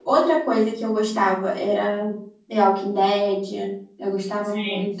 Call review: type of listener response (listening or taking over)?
listening